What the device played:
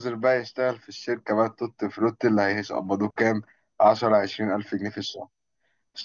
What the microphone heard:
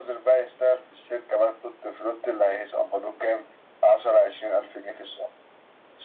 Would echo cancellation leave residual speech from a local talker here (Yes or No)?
No